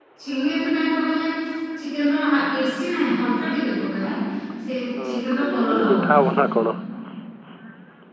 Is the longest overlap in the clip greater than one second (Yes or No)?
Yes